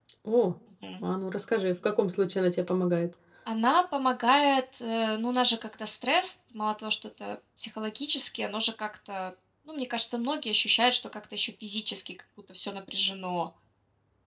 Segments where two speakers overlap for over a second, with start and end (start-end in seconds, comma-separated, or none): none